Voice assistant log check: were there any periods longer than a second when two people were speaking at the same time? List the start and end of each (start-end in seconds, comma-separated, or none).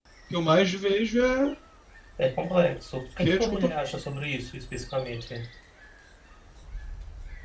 none